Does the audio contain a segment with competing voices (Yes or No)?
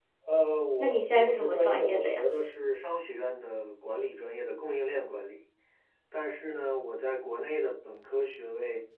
Yes